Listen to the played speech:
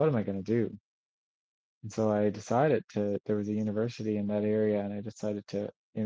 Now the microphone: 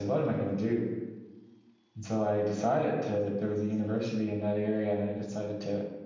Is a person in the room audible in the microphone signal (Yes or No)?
No